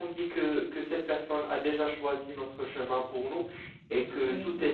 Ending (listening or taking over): listening